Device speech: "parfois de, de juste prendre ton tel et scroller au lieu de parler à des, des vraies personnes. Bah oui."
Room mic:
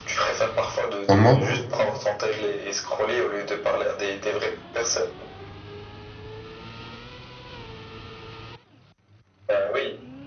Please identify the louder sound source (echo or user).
user